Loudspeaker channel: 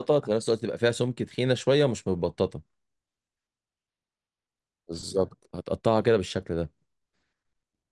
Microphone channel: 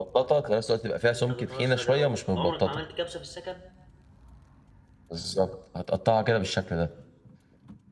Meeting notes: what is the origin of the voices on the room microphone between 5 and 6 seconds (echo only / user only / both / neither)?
echo only